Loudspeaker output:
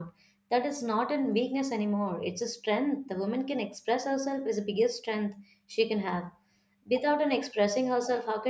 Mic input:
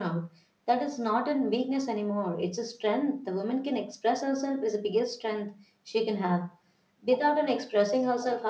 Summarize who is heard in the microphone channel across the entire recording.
echo only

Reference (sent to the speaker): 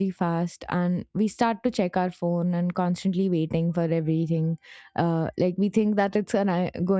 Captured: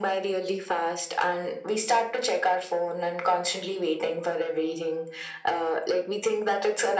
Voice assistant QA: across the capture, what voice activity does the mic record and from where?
echo only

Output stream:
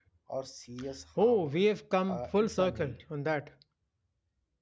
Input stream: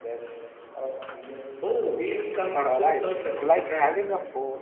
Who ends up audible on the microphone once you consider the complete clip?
both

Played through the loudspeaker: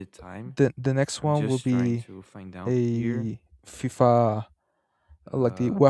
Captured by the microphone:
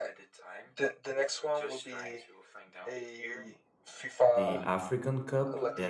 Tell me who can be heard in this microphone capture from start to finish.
both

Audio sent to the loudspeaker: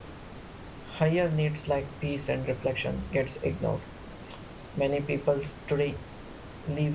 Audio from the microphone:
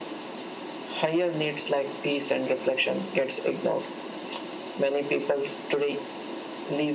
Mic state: echo only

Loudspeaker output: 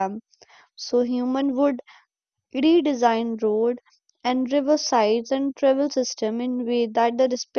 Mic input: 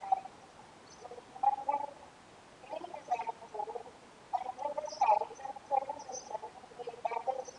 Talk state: echo only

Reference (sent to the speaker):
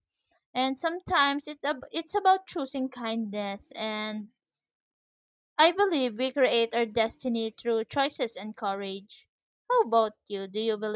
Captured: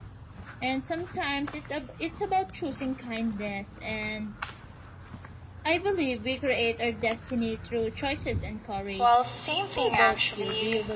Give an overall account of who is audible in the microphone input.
both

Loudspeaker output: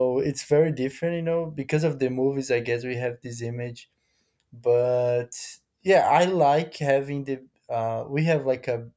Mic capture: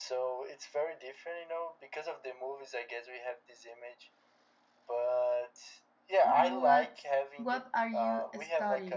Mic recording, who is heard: both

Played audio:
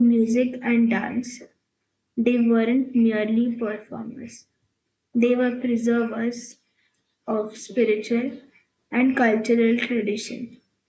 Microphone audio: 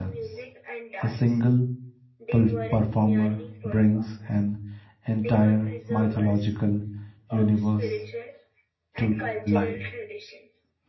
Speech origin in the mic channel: both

